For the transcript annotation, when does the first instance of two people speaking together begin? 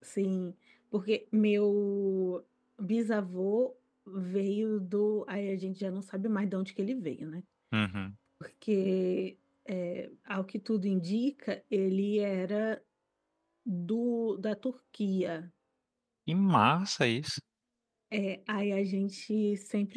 none

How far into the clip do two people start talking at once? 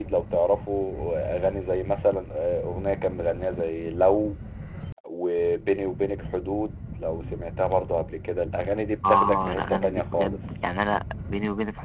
9.0 s

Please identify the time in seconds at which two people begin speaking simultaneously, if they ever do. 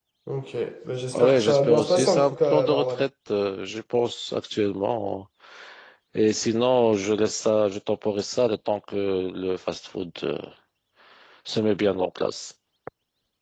1.1 s

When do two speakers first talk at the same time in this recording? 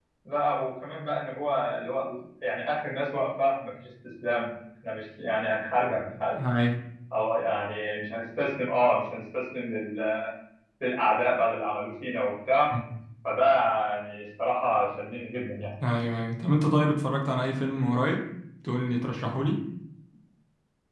none

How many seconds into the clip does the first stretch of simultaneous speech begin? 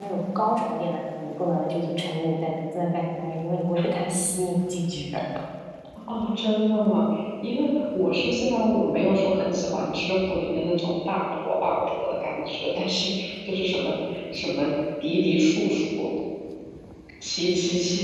none

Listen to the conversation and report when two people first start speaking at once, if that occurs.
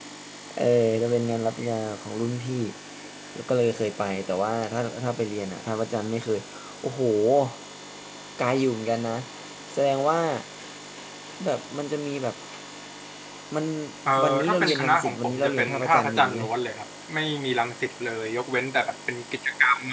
14.5 s

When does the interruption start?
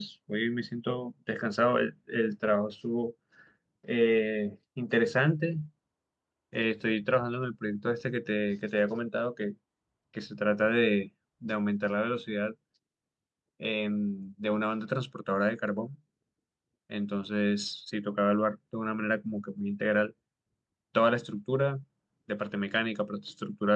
none

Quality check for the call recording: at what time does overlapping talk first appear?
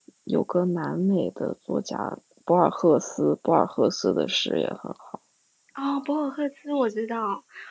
none

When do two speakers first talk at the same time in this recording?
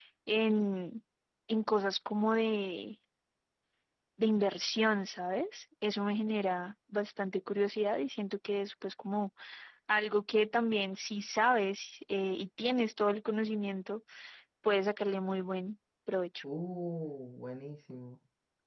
none

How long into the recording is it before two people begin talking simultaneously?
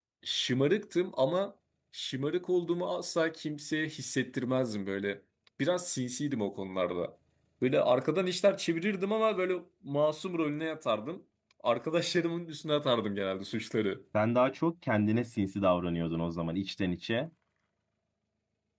none

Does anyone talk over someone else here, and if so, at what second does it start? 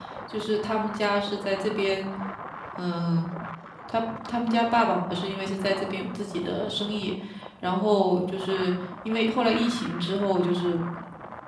none

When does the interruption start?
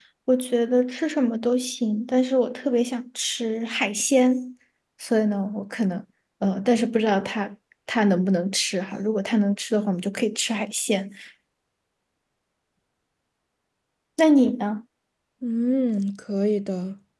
none

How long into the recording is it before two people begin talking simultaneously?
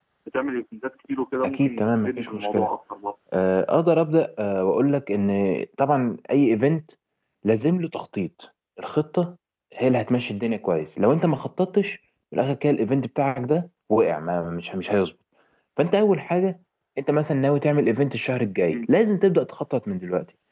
1.4 s

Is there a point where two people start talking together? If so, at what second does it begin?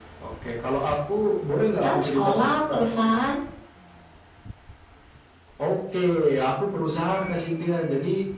1.8 s

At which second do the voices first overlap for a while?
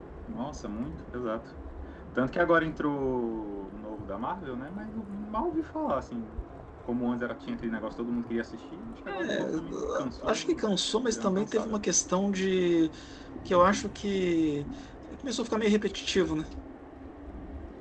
9.1 s

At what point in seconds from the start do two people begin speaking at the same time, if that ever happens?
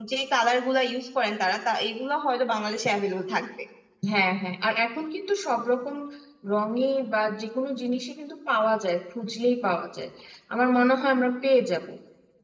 none

